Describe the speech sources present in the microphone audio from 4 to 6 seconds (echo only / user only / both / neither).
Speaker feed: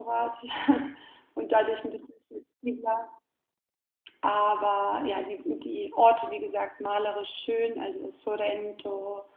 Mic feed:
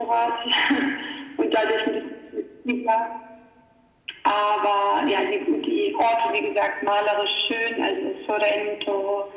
echo only